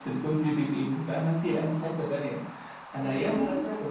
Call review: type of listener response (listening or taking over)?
listening